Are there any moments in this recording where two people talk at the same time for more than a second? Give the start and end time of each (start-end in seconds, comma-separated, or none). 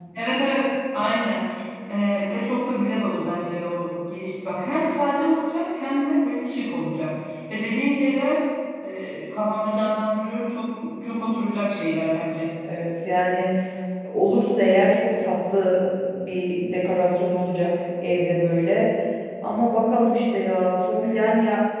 none